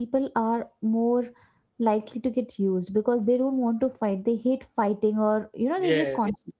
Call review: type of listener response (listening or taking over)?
taking over